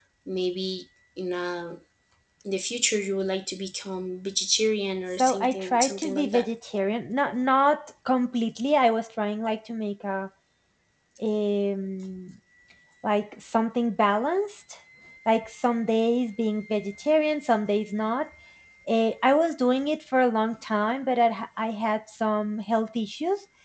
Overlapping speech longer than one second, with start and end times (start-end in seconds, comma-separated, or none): 5.2-6.5